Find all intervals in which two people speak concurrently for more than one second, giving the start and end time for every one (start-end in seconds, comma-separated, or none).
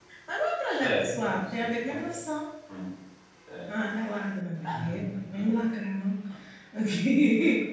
0.8-2.1